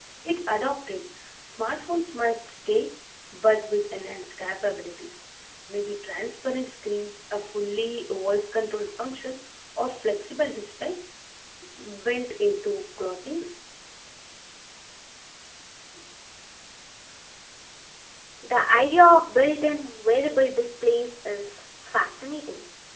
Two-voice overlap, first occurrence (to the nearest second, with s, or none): none